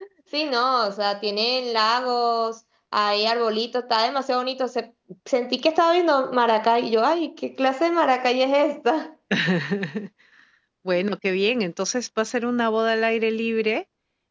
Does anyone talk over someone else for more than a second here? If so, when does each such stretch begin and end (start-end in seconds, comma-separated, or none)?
none